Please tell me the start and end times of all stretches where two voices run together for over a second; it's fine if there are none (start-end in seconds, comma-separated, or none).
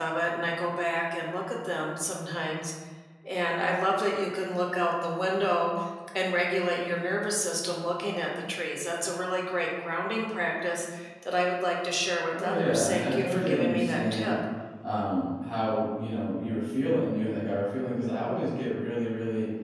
12.4-14.3